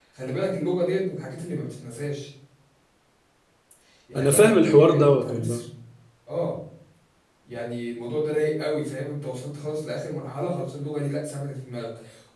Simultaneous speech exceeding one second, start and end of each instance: 4.2-5.7

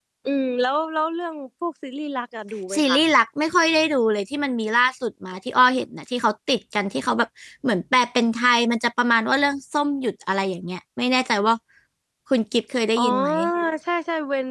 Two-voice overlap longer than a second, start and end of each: none

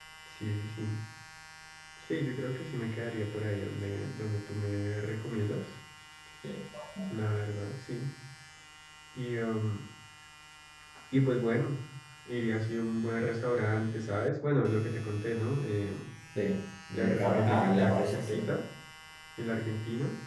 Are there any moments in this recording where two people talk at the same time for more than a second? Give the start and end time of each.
16.9-18.5

